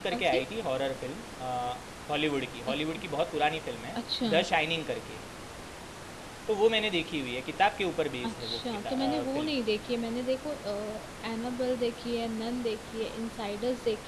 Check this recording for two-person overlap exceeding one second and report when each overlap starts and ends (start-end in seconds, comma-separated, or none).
8.2-9.5